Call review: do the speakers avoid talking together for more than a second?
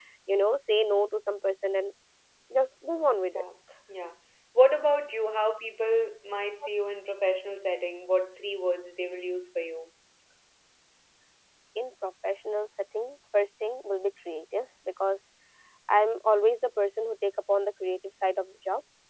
Yes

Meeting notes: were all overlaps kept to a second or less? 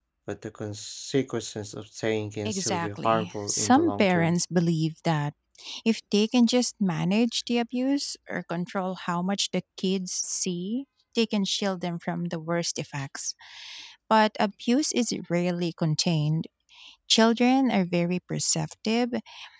No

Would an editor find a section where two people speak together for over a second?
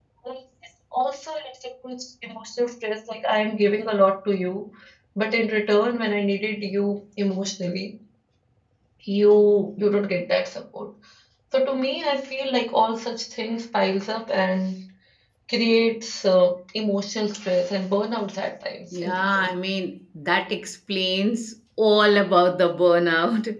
No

